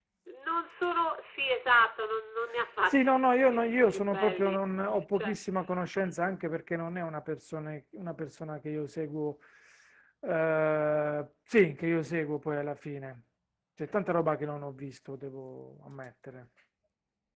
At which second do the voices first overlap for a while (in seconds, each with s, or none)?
2.9 s